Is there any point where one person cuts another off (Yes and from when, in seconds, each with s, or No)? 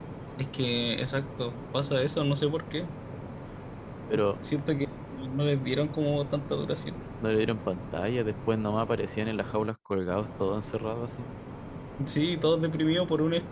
No